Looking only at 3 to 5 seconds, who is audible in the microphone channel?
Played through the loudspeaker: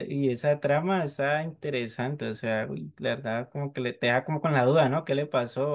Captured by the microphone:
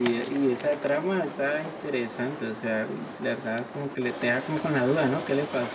echo only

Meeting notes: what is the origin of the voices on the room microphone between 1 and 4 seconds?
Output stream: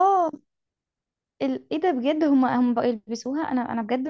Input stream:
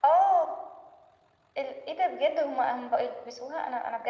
echo only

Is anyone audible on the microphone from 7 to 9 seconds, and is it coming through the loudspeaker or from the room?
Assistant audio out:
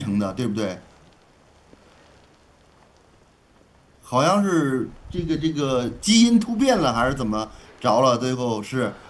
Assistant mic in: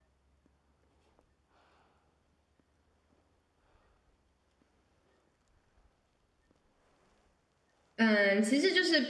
user only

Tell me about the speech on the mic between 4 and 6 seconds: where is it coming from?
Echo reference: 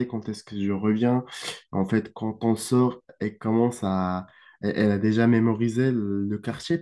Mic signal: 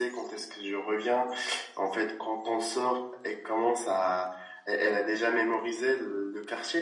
echo only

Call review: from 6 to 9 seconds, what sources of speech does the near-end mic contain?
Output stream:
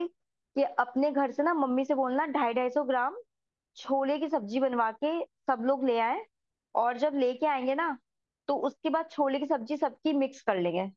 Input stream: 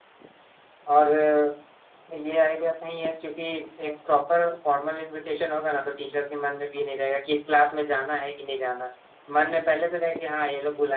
user only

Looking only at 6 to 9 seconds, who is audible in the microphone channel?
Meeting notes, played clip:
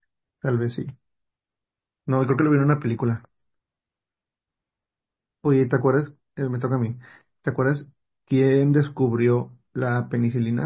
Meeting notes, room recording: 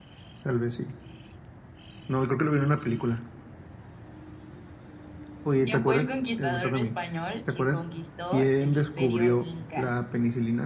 both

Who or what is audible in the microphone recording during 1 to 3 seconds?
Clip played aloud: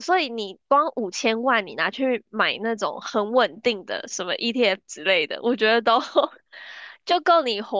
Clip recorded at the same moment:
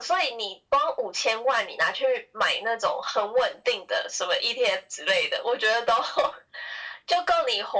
echo only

